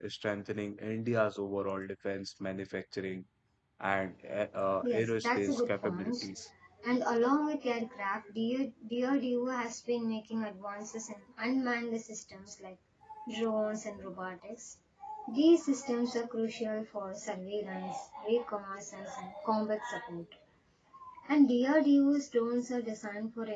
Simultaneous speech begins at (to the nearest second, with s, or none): 5 s